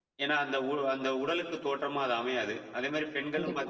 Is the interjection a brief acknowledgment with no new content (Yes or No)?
Yes